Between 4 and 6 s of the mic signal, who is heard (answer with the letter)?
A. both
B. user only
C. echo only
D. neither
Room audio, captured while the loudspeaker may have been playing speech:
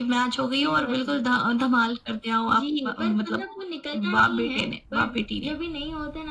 C